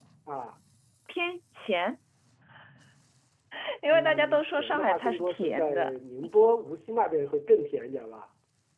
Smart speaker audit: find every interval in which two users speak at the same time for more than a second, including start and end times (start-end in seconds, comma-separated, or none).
3.9-5.9